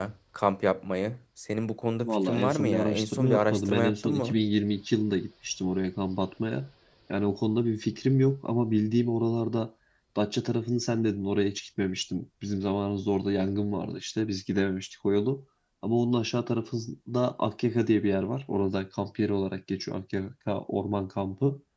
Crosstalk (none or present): present